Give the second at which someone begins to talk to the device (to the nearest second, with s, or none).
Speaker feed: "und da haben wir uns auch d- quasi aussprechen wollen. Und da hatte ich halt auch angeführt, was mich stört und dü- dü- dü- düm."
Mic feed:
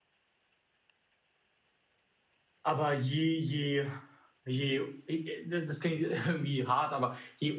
3 s